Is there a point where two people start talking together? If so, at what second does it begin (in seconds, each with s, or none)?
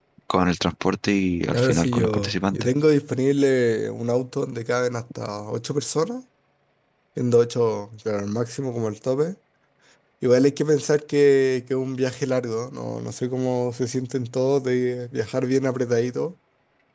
1.5 s